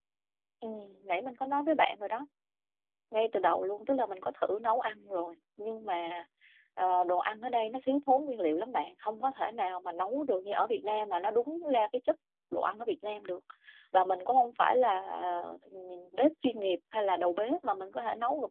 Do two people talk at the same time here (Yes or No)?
No